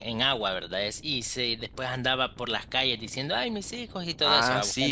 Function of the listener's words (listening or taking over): taking over